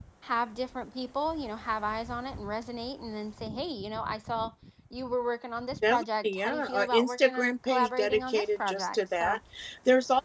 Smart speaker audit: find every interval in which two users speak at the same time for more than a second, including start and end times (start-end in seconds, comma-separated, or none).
5.9-9.4